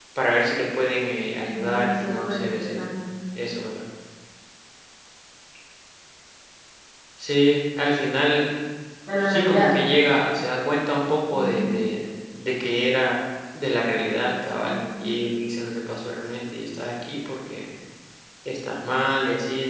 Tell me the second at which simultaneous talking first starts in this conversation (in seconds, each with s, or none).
1.5 s